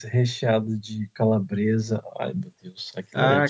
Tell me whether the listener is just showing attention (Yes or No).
No